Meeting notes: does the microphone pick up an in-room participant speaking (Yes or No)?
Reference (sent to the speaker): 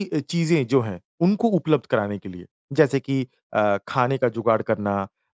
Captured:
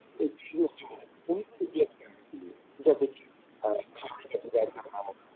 No